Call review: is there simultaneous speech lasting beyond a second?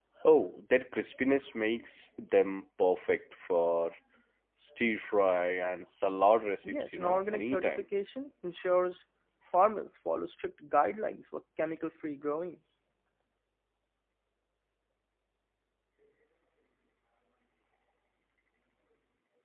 Yes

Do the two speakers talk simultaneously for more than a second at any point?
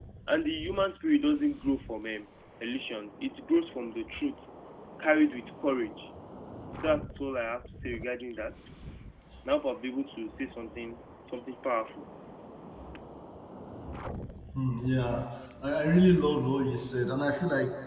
No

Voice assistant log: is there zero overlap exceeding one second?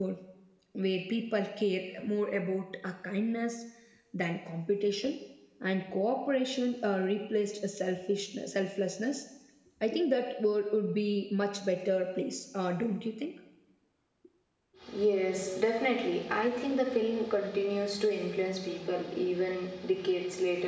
Yes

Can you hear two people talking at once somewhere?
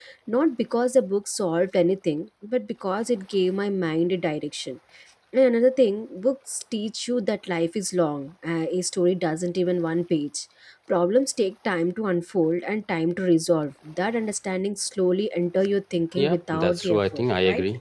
Yes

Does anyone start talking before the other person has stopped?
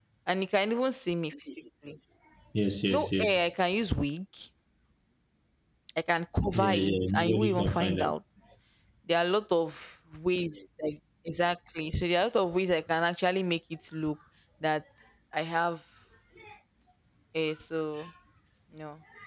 Yes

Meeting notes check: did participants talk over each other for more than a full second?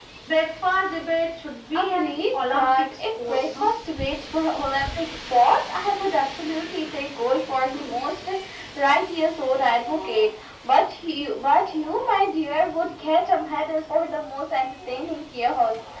Yes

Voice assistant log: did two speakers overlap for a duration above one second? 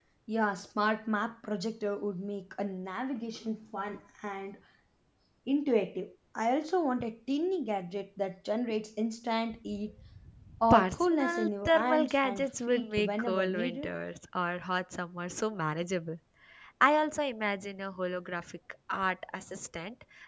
Yes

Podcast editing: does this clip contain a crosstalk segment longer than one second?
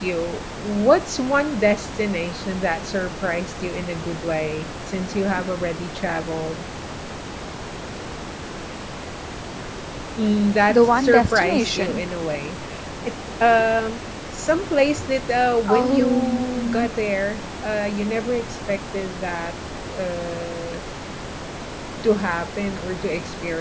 Yes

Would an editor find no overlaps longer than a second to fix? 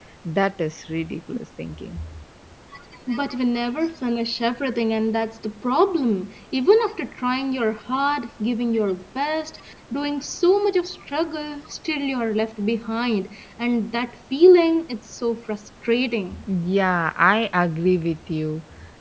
Yes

